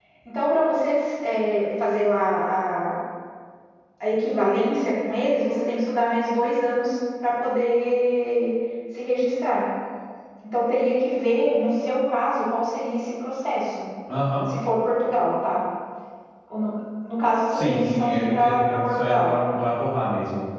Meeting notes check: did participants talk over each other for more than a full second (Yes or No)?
Yes